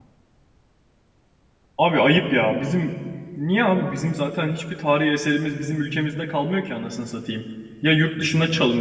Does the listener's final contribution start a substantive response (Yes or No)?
No